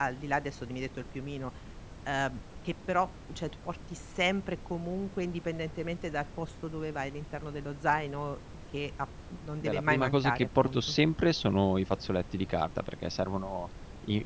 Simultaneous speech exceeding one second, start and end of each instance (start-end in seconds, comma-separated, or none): 9.6-11.0